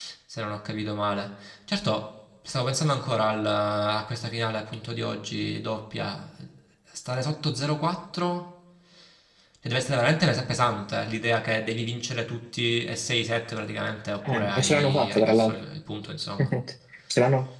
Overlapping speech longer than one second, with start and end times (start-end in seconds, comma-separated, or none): 14.3-15.5